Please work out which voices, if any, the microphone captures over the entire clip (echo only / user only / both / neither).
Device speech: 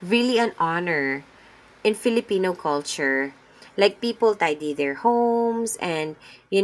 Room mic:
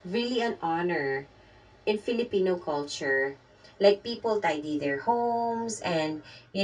echo only